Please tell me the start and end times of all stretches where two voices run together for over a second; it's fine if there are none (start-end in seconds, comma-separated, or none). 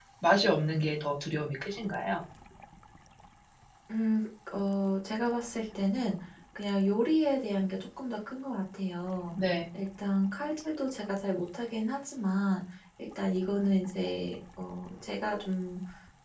none